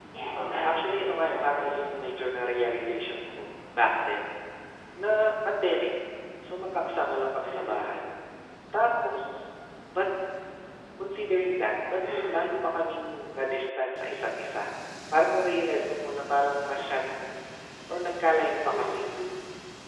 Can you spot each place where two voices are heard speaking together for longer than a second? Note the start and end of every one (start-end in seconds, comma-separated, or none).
0.6-1.9